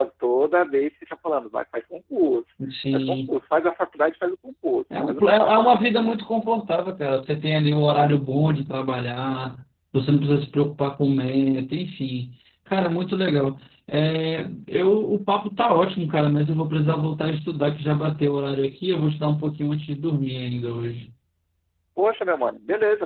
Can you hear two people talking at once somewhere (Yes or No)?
Yes